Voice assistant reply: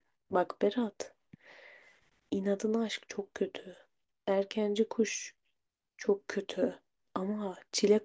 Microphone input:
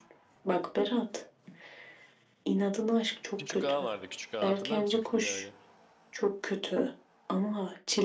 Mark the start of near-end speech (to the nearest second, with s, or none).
3 s